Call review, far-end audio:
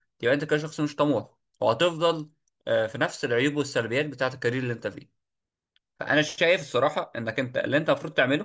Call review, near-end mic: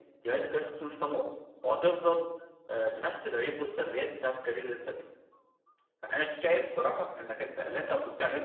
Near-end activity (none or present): none